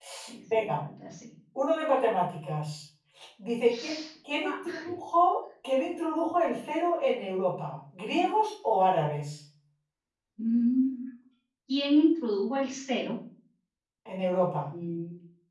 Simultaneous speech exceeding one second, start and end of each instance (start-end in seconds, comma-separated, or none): none